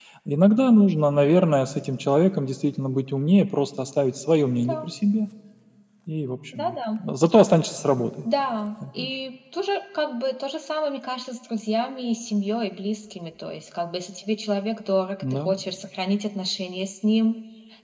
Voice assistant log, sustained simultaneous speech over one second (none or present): none